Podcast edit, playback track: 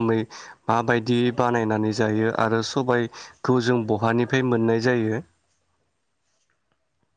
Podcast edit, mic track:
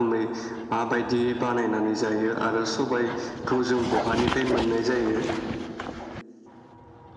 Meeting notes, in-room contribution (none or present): none